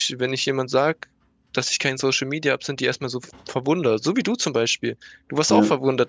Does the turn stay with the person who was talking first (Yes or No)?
Yes